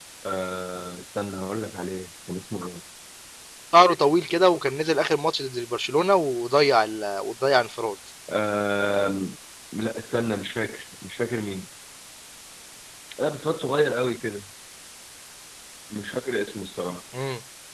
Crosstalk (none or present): none